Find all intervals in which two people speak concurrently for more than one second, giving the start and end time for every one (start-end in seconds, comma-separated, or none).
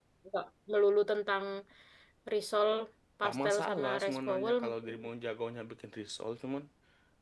3.2-5.0